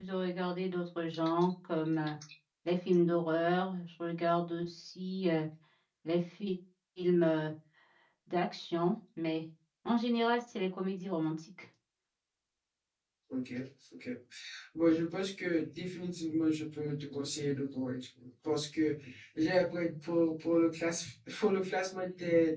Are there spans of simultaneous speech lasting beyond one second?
No

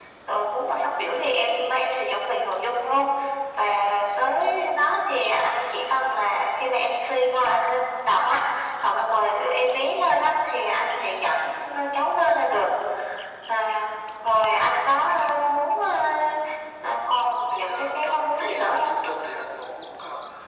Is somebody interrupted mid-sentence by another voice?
Yes, from 17.5 s

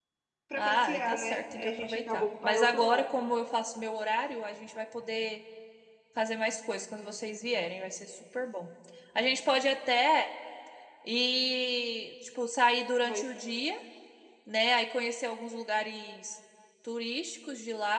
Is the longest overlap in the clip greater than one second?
Yes, from 0.6 s

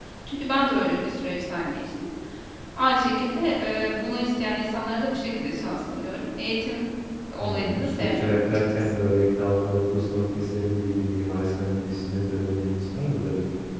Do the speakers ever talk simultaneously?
Yes, from 7.4 s

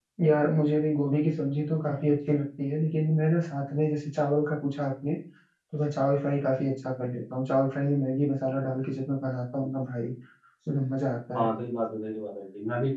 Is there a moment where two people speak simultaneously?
No

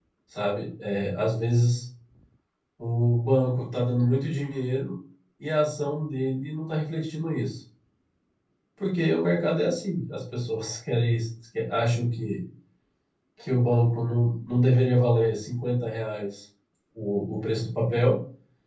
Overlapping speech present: No

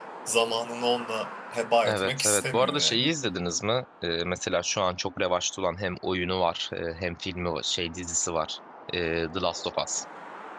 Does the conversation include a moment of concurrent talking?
Yes, from 1.8 s

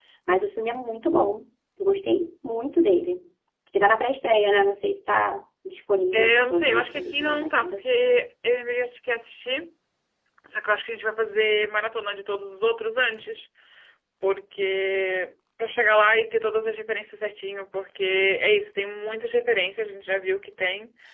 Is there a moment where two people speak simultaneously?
Yes, from 6.1 s

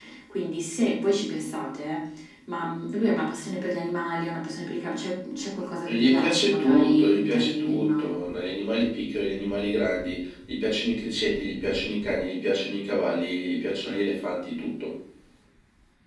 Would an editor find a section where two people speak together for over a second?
Yes, from 5.9 s

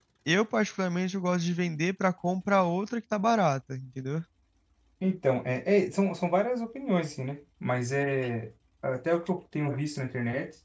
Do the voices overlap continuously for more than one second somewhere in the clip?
No

